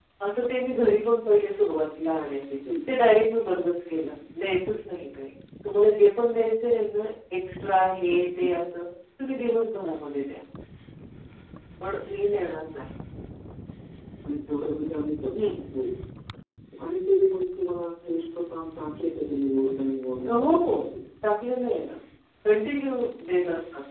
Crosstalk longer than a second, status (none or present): none